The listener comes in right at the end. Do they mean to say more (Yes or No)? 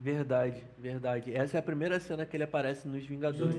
Yes